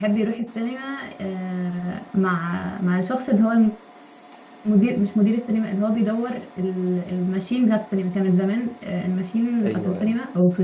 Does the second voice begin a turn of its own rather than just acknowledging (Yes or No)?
No